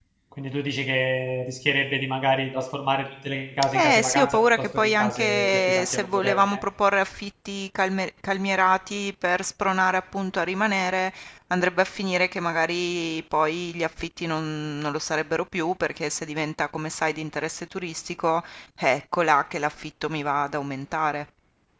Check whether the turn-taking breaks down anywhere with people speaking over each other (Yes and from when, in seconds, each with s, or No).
Yes, from 3.6 s